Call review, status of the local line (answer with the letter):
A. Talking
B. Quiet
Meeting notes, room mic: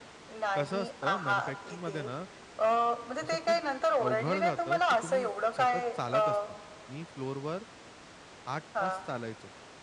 A